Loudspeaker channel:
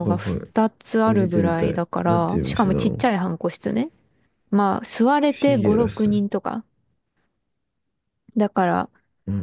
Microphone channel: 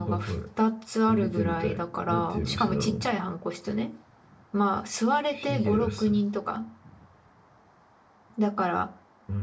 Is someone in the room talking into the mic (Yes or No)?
No